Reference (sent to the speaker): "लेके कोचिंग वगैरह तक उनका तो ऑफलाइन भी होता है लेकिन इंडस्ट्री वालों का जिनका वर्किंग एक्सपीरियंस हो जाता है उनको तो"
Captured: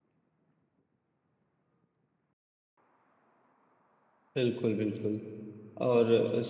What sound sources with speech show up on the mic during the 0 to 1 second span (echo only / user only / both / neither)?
neither